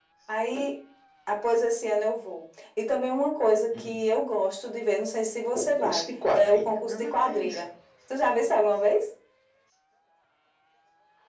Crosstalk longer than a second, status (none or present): present